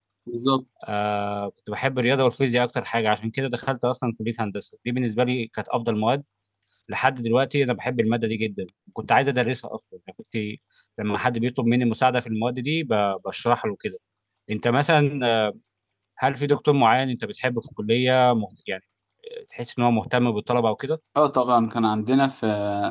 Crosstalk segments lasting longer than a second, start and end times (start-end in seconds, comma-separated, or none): none